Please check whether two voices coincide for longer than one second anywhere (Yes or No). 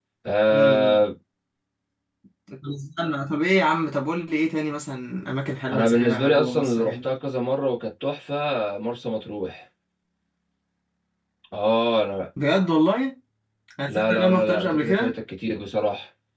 Yes